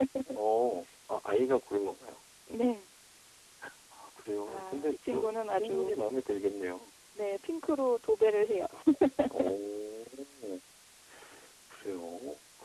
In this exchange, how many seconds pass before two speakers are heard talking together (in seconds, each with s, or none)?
4.5 s